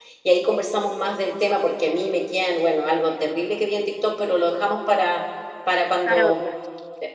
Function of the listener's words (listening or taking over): listening